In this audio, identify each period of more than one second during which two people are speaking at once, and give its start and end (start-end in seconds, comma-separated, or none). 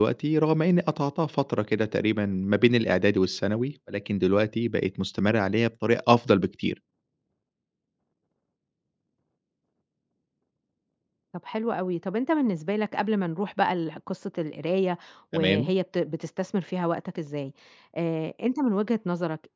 none